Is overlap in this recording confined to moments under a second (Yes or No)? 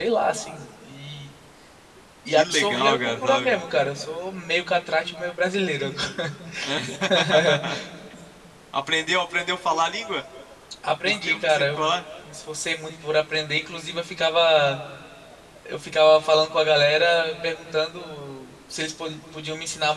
No